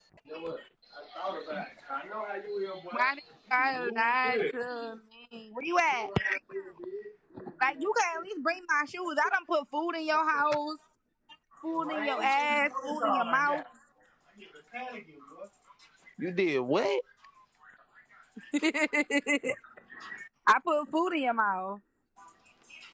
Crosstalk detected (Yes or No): Yes